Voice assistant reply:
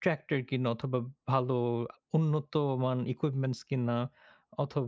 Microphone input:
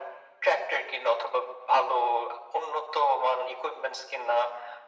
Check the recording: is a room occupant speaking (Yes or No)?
No